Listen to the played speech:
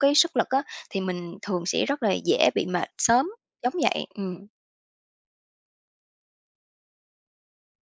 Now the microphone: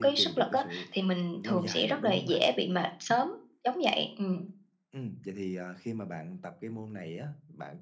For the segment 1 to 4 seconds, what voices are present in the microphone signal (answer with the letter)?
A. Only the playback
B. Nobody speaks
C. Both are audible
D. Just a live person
C